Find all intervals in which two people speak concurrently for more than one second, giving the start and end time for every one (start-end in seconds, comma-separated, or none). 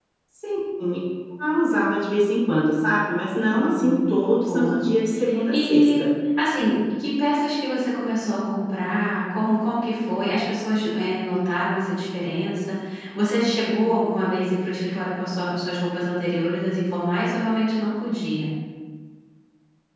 3.6-4.8